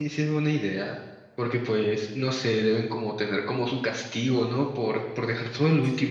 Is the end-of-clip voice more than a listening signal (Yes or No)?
Yes